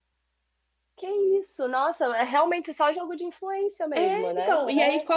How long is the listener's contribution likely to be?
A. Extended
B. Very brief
A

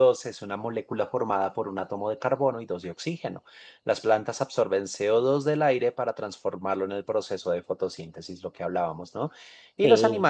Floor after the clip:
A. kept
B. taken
A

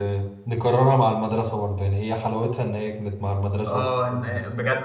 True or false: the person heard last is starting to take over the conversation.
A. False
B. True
B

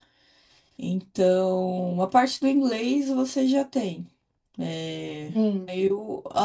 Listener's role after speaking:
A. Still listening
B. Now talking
A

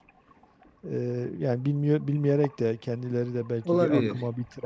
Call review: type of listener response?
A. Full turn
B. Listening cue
B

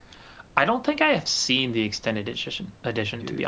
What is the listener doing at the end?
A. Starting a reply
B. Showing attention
B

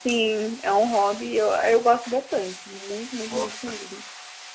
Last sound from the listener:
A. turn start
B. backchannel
B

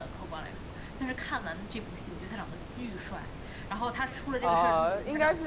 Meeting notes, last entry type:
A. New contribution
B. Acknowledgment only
A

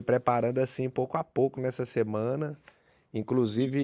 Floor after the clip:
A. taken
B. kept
B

